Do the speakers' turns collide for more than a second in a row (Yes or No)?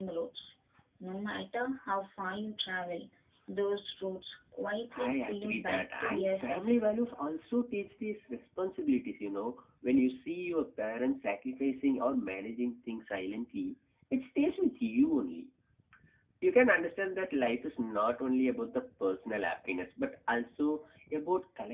Yes